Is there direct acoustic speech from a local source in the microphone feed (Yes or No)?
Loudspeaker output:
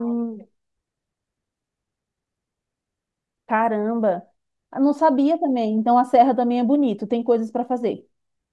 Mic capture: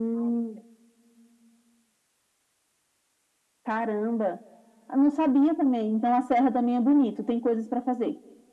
No